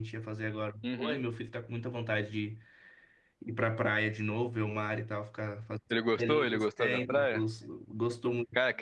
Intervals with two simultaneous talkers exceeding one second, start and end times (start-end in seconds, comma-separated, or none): 6.2-7.4